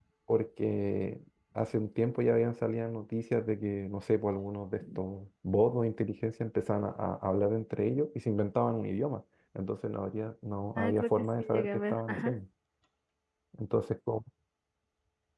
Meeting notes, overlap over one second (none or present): present